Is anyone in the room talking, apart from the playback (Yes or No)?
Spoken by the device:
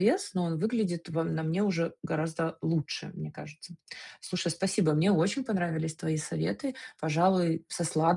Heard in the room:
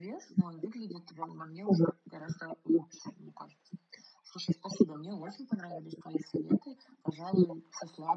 No